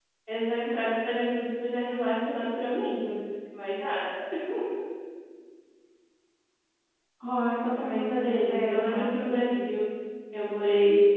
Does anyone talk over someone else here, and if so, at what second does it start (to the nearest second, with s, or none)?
8 s